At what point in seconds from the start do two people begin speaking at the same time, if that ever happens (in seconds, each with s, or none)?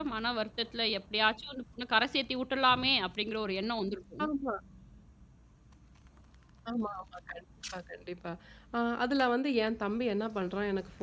none